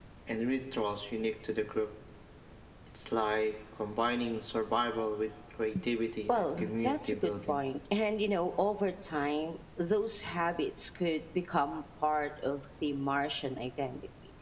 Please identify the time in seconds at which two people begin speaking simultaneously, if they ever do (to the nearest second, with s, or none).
6 s